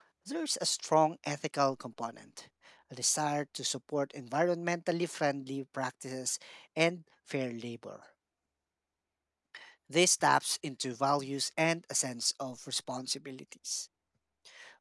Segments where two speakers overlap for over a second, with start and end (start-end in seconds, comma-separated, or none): none